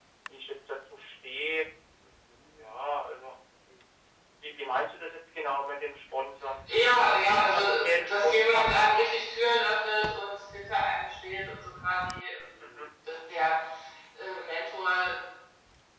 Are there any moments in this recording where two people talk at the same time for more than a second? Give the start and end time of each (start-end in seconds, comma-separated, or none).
7.4-9.0